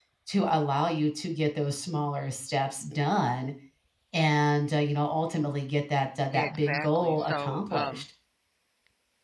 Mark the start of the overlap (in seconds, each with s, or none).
6.3 s